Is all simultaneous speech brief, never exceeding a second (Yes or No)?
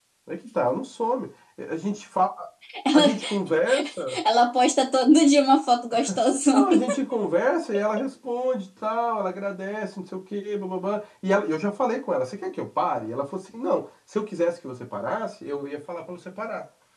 Yes